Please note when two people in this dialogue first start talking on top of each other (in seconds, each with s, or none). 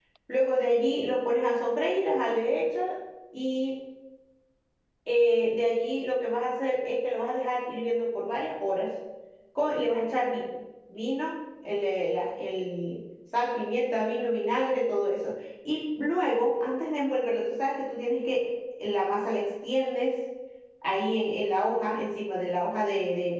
none